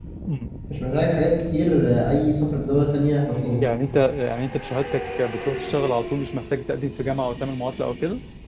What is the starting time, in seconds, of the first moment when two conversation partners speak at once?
none

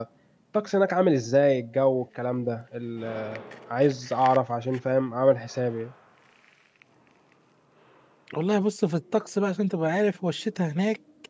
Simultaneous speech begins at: none

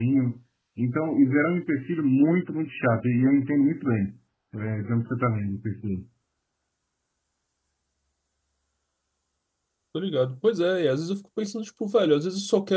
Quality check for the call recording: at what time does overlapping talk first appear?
none

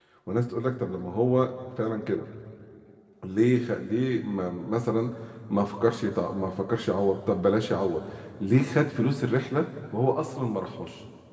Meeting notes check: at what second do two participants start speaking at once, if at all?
none

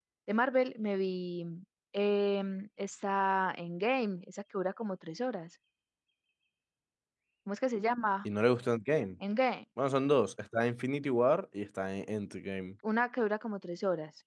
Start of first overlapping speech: none

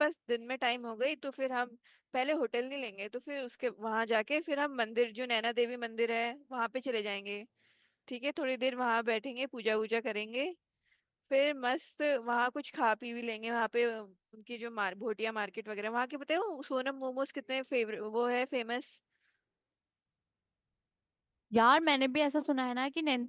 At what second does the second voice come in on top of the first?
none

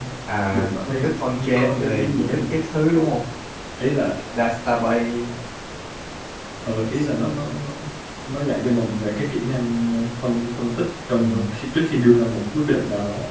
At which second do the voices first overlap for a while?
1 s

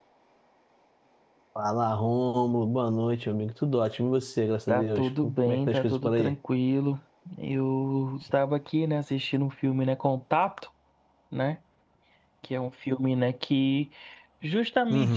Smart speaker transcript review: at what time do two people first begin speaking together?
5 s

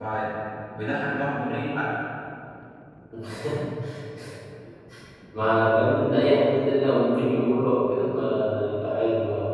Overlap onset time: none

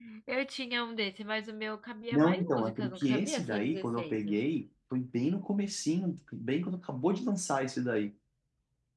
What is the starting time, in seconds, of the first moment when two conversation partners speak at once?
2 s

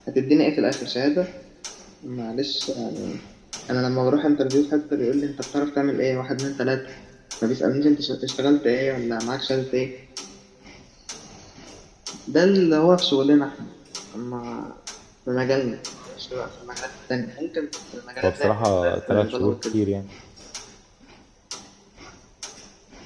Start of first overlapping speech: 18 s

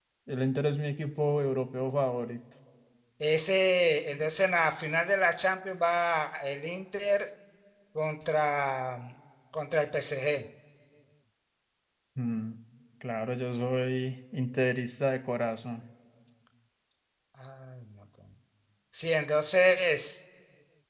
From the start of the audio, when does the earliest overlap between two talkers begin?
none

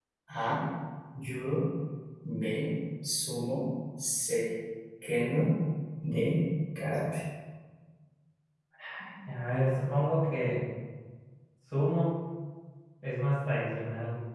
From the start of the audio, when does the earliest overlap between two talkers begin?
none

